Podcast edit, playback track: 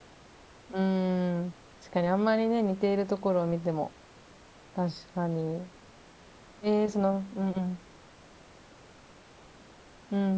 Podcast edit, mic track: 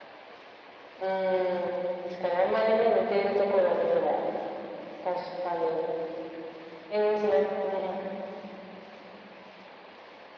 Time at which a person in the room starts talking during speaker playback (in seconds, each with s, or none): none